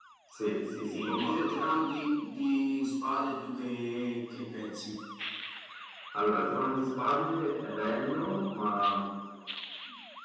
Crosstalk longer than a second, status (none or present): present